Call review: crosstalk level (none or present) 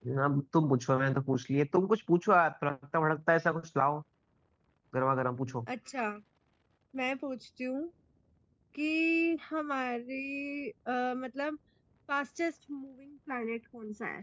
none